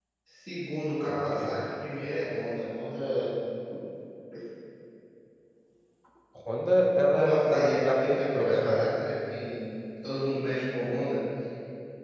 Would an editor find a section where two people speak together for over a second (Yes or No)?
Yes